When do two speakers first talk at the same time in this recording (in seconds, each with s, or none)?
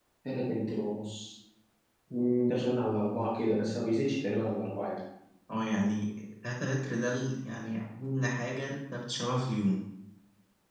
none